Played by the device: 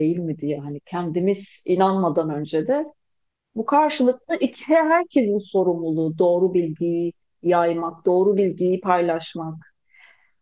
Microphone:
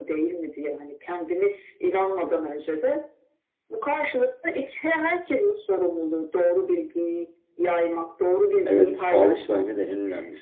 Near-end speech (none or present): present